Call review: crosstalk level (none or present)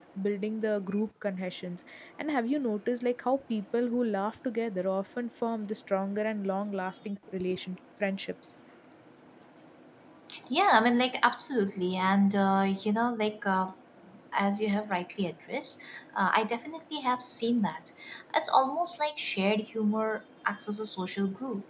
none